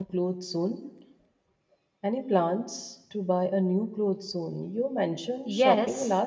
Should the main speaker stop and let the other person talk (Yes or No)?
Yes